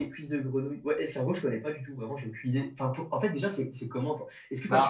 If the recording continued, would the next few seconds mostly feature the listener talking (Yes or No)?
No